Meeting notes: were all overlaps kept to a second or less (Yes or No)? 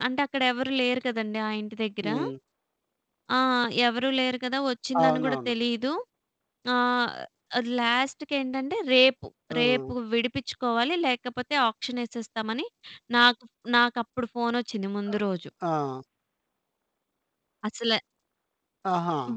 Yes